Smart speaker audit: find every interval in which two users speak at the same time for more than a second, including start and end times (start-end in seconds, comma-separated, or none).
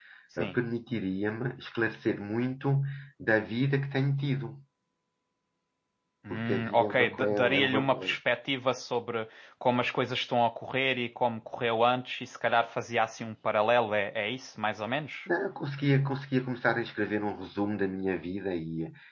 6.3-8.2